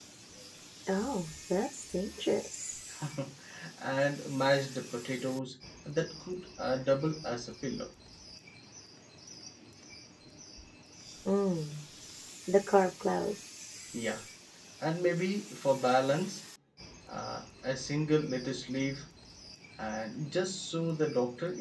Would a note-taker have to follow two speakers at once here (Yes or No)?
No